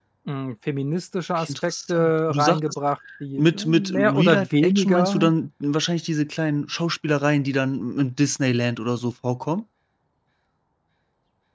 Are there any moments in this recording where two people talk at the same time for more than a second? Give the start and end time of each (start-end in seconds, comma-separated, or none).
1.4-2.6, 3.4-5.3